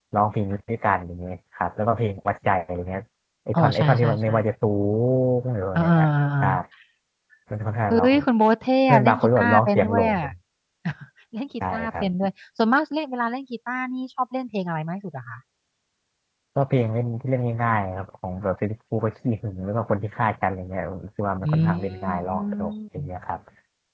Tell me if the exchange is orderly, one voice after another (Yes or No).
No